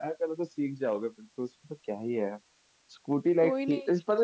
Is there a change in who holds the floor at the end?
No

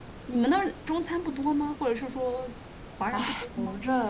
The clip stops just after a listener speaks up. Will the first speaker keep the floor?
No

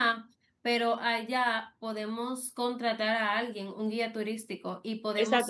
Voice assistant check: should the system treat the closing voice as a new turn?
Yes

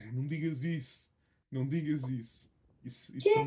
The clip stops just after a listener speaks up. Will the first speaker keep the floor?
Yes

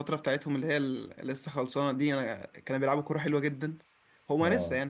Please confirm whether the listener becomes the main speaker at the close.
No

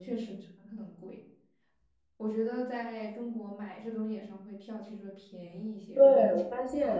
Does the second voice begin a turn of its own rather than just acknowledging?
Yes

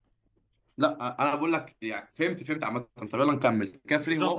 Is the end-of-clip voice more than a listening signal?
Yes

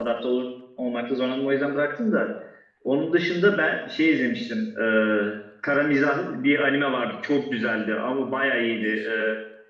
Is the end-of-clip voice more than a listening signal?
No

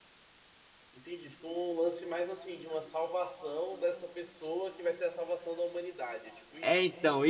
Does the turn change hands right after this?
Yes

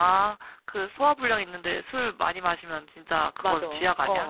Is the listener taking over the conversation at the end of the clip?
Yes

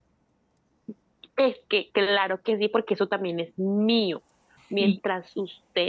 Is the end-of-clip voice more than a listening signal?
No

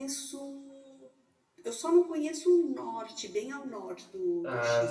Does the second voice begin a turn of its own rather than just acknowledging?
No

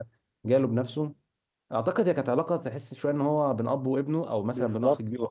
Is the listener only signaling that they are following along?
No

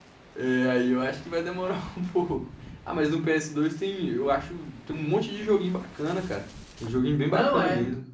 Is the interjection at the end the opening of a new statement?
Yes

